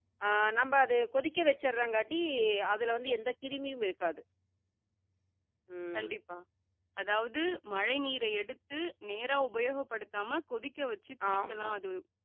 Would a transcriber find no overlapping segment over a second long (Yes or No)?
Yes